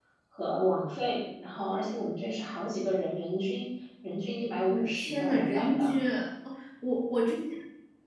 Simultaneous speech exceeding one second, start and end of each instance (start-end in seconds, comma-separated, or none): 4.7-6.0